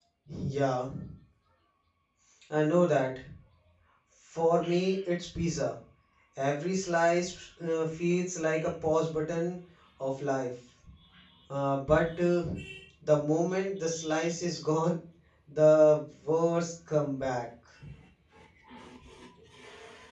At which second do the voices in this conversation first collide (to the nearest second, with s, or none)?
none